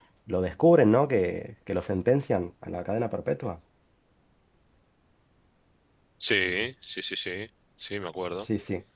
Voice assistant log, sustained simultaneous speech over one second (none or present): none